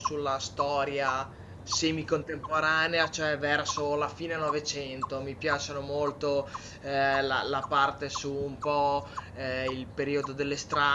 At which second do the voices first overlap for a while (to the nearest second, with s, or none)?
none